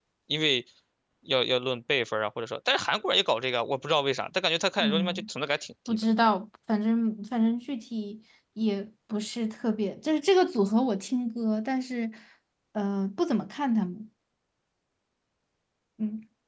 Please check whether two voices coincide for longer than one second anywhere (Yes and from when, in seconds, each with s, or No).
No